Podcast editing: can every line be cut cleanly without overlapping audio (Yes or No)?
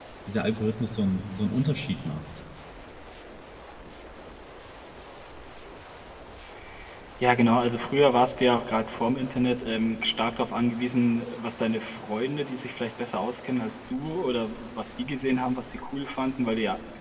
Yes